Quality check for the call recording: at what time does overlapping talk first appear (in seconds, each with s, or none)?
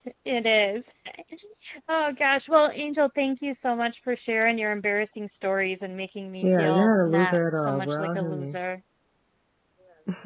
6.4 s